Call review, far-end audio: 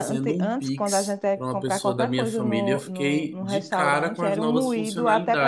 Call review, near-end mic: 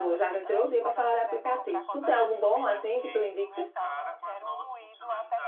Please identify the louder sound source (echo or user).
user